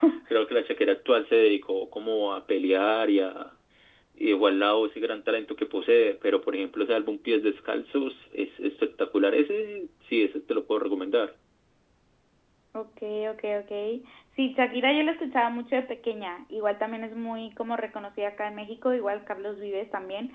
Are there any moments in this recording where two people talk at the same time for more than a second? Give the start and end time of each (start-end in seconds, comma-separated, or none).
none